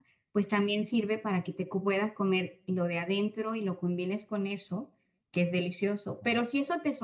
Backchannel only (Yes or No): Yes